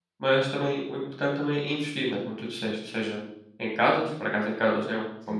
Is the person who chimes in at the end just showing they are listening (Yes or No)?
Yes